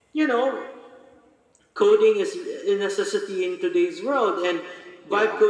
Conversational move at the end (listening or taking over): listening